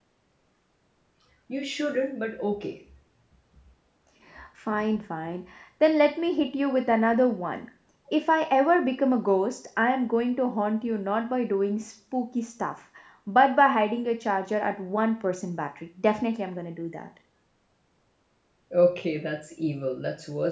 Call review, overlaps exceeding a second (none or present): none